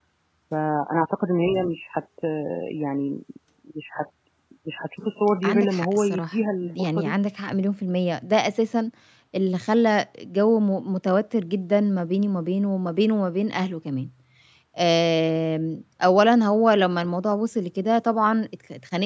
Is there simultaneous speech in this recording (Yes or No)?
Yes